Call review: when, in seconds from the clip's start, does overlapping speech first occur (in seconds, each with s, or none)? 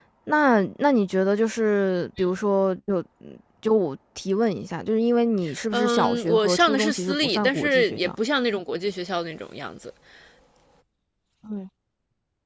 5.7 s